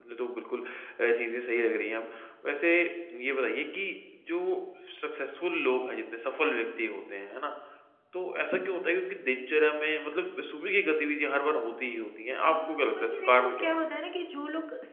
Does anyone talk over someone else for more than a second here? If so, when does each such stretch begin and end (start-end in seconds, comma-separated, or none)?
12.4-13.8